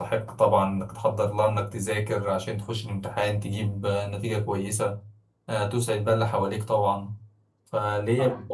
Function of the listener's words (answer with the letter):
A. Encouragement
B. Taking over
A